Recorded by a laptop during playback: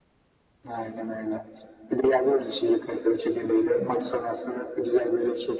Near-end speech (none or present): none